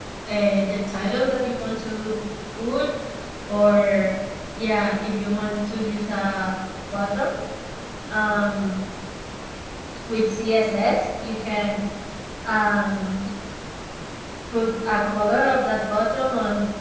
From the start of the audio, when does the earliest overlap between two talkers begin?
none

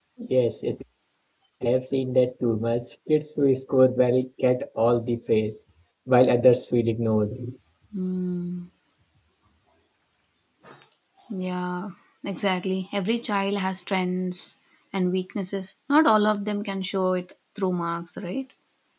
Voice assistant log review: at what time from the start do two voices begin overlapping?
none

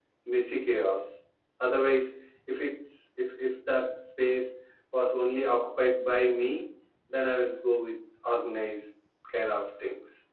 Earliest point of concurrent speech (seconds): none

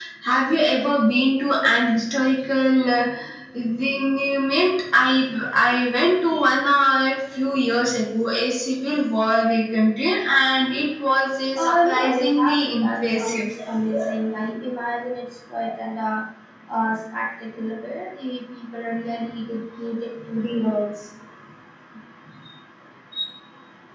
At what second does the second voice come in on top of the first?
11.6 s

